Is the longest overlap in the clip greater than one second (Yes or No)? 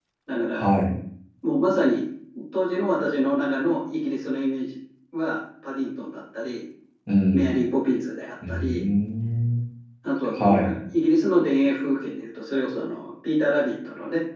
No